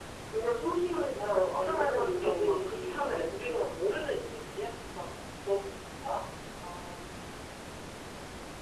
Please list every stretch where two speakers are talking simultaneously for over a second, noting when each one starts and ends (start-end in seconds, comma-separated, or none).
1.1-3.5